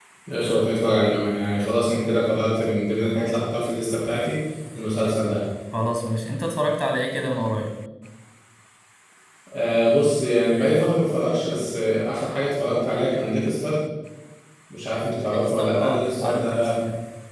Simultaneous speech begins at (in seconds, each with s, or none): 15.2 s